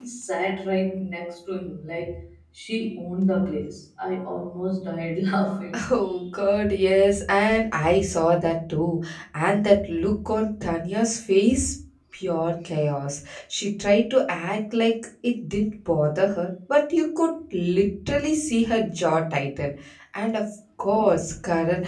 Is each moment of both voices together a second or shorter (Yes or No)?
Yes